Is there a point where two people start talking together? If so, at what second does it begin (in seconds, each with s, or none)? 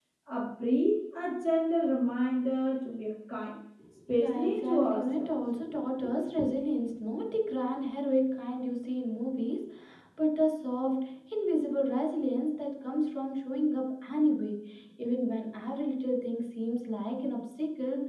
4.1 s